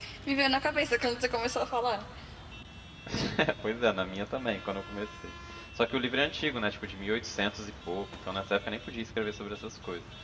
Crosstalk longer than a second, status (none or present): none